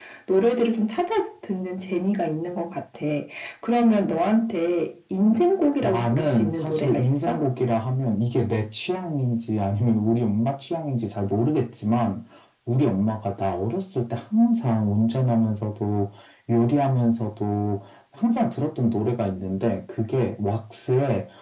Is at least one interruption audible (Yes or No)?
Yes